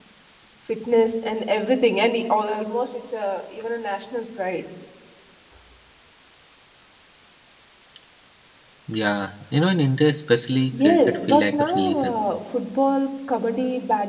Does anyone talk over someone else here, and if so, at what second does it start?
11 s

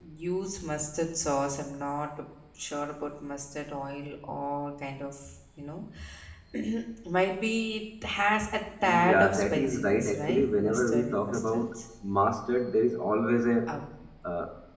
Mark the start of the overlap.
9 s

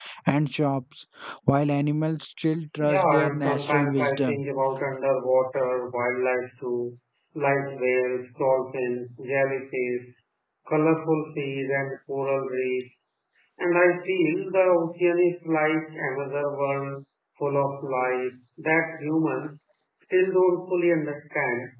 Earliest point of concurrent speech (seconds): 3 s

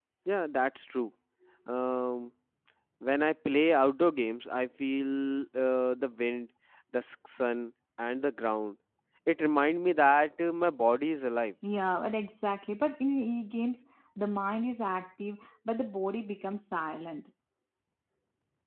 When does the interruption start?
none

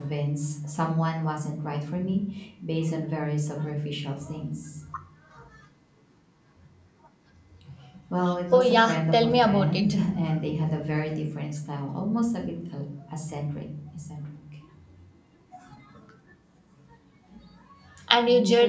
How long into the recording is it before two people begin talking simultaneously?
9 s

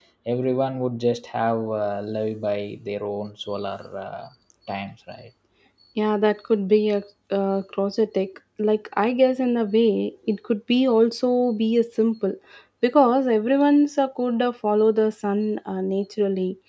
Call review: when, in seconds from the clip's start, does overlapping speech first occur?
none

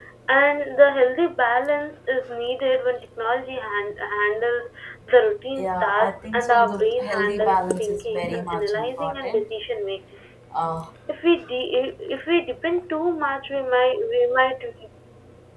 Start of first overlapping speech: 6 s

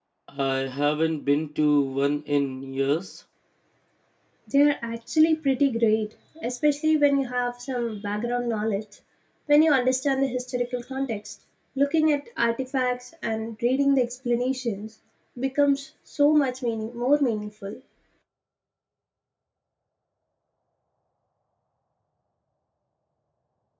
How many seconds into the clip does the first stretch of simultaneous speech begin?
none

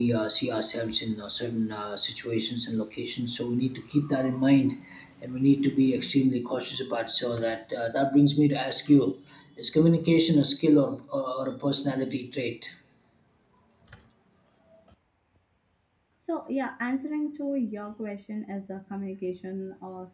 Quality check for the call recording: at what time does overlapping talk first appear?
none

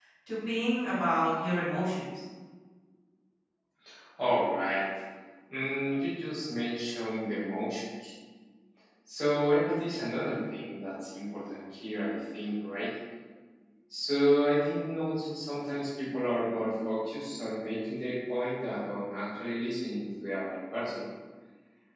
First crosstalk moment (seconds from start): none

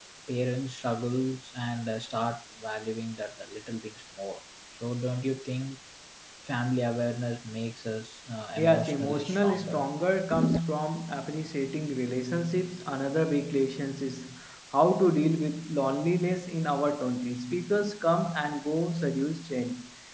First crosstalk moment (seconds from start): 9 s

